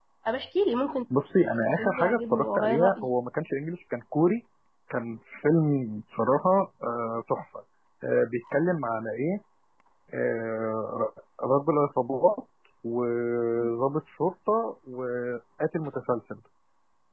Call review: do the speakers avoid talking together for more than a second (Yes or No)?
No